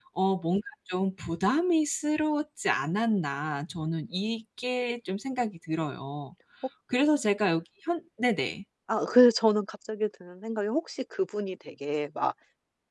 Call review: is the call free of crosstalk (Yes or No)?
Yes